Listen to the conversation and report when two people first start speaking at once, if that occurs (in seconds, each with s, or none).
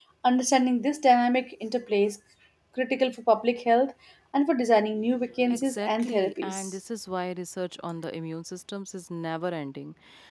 5.5 s